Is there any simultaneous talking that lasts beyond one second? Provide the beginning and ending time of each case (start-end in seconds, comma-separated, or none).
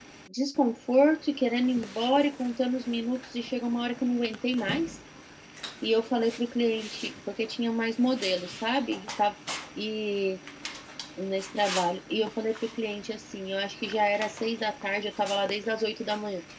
none